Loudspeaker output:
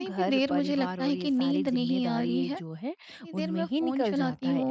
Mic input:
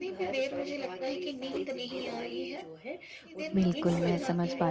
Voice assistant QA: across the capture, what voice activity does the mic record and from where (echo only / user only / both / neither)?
both